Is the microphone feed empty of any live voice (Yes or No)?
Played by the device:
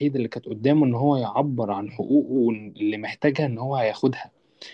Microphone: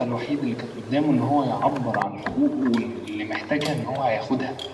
Yes